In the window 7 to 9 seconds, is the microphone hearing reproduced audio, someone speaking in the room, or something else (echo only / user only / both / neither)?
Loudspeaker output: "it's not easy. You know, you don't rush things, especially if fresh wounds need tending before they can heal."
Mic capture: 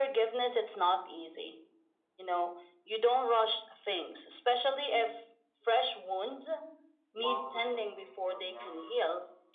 both